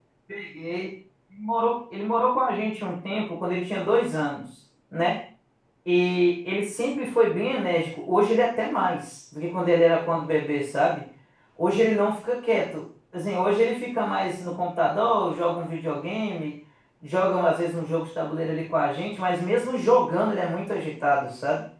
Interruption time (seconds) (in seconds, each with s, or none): none